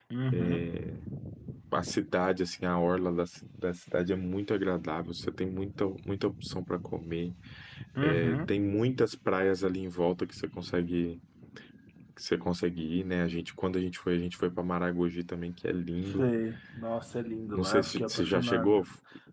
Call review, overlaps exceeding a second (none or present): present